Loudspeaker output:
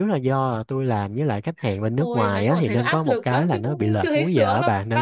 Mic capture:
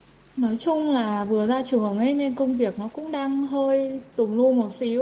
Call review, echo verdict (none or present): none